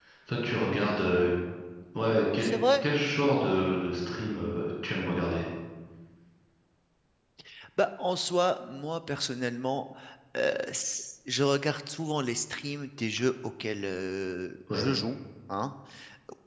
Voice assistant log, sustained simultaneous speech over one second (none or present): none